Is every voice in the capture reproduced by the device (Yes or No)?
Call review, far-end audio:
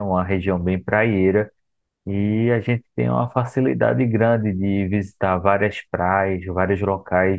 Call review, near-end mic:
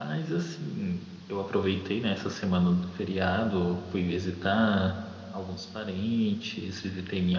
No